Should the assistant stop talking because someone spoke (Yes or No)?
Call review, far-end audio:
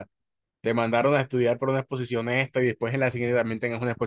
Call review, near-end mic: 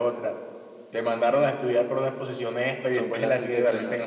Yes